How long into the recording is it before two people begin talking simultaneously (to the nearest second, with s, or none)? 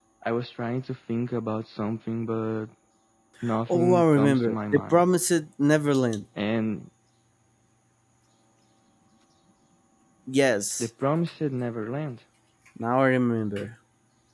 4 s